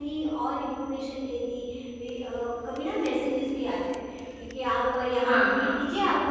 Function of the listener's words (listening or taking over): listening